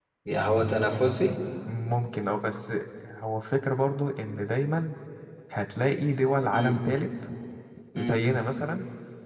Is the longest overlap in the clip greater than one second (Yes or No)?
No